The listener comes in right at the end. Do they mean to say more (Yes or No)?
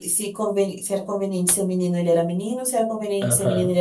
No